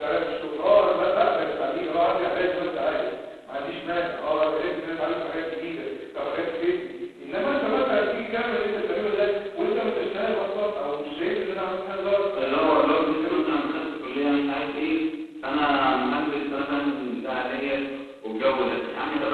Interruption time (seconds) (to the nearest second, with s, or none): 12 s